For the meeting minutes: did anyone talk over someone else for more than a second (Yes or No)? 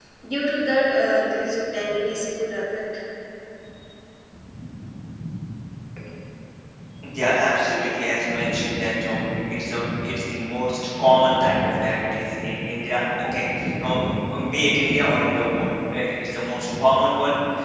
No